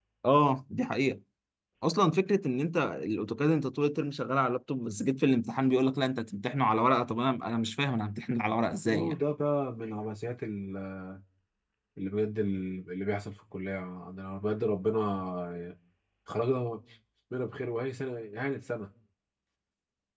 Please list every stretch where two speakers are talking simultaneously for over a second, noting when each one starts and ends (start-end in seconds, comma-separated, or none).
none